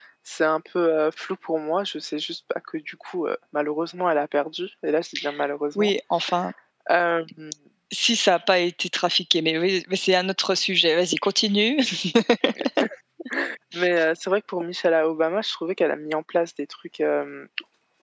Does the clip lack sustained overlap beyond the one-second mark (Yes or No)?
Yes